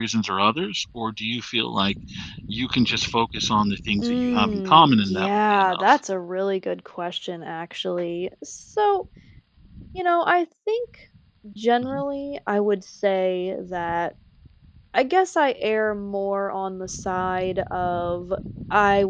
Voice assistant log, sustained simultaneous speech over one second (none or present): present